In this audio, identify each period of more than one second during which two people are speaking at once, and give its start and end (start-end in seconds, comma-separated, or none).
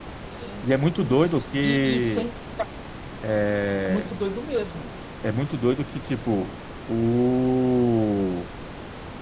1.0-2.3